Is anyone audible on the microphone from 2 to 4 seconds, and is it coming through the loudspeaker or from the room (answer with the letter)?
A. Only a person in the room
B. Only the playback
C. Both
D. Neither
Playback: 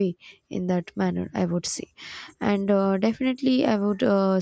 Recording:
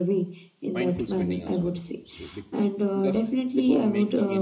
C